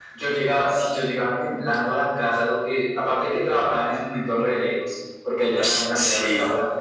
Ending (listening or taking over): listening